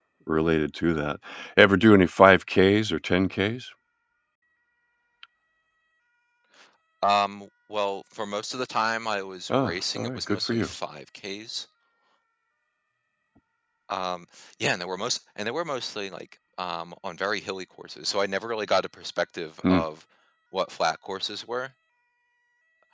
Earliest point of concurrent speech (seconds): 9 s

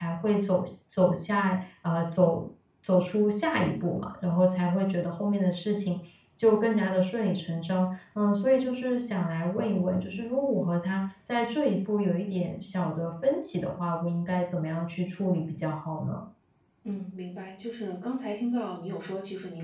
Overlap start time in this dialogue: none

